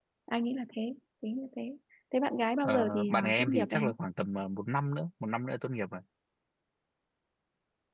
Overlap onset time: 2.6 s

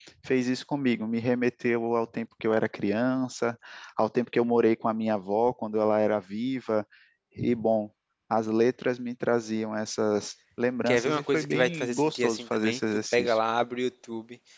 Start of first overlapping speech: 10.9 s

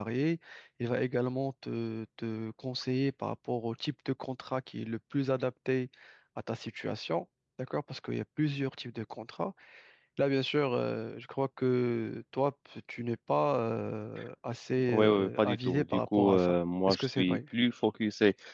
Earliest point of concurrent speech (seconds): 14.9 s

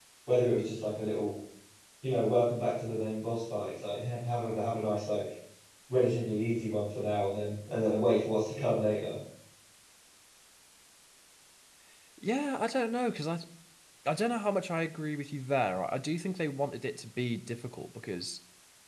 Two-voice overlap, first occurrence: none

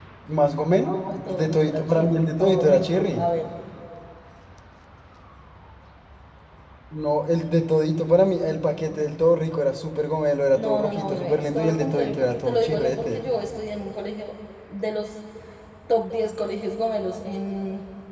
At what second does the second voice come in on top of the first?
0.8 s

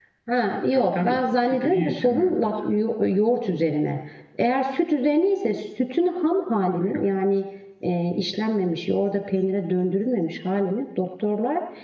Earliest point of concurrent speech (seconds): 0.7 s

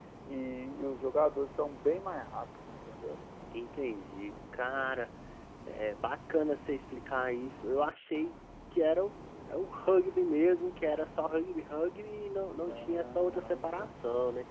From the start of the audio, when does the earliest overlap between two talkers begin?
12.5 s

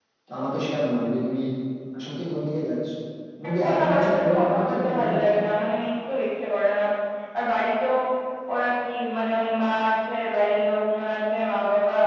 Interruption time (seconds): 3.5 s

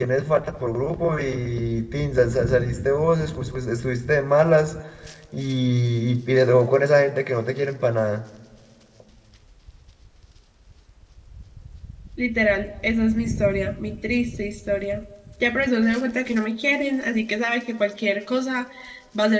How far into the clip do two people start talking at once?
none

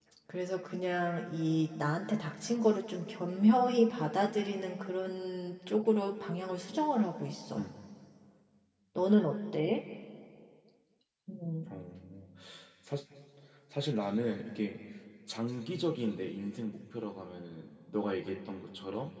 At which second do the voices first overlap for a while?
none

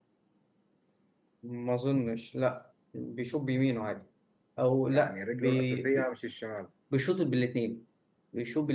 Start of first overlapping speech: 4.9 s

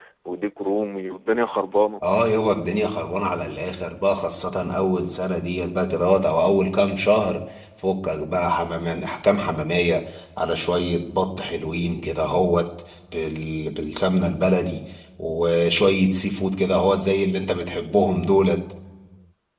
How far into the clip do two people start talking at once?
none

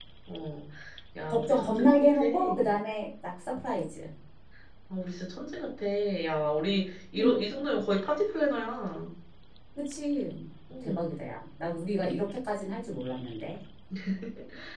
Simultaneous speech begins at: 1.3 s

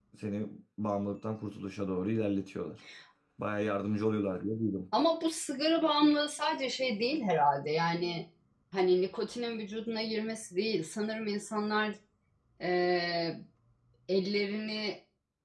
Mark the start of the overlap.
none

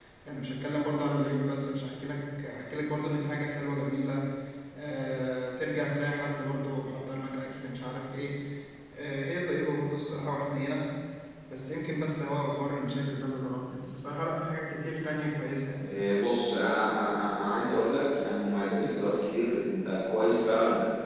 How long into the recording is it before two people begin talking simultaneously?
none

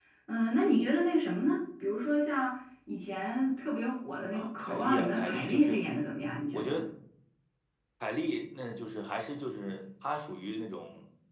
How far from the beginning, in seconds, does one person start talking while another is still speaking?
4.3 s

